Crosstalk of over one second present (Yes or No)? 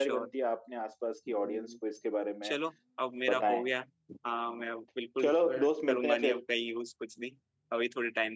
Yes